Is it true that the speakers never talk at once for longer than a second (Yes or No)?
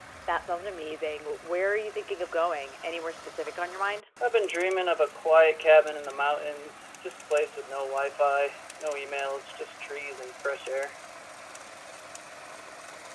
Yes